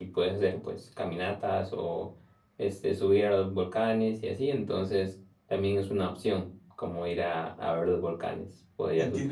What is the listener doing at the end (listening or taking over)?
taking over